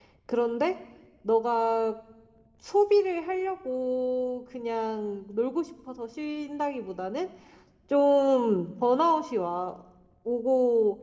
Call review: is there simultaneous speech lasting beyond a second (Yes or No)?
No